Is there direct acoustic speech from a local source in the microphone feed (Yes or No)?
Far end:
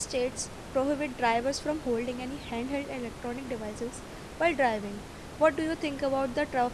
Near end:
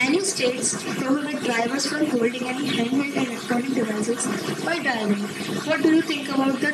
No